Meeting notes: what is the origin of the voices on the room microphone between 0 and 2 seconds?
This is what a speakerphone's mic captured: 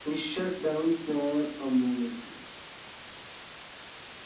echo only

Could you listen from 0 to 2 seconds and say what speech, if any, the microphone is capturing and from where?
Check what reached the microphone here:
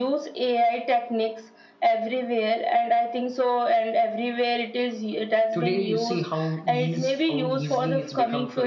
echo only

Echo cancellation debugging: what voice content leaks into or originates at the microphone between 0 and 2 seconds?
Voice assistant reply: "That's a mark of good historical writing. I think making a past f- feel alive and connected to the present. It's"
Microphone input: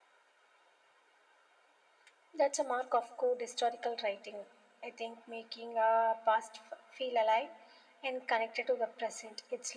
neither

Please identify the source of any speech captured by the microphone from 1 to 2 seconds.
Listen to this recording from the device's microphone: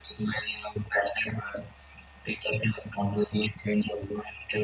echo only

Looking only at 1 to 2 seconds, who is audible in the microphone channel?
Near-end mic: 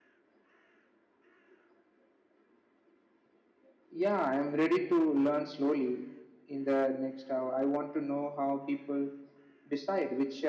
neither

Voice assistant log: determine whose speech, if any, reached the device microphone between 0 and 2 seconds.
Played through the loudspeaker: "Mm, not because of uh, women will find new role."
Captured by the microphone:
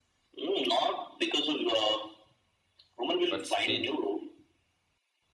echo only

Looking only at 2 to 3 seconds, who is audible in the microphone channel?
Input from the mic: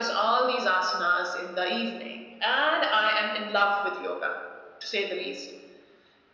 echo only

